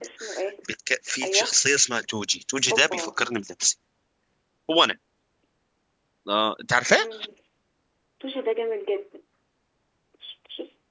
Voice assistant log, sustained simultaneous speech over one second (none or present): none